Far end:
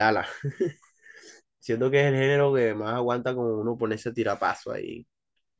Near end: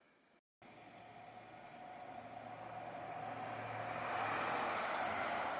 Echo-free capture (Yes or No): Yes